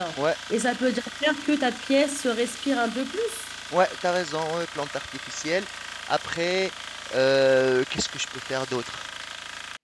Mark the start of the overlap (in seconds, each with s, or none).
none